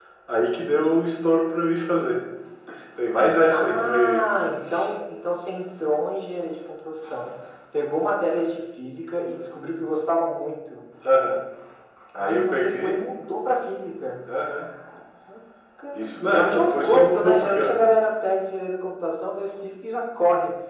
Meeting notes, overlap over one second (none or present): present